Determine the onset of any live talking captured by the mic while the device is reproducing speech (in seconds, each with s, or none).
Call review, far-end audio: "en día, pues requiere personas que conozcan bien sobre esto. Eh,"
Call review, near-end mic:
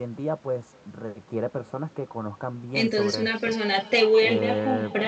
2.7 s